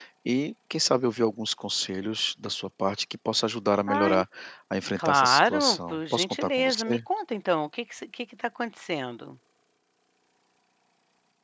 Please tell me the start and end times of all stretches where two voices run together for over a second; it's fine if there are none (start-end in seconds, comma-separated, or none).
5.0-7.0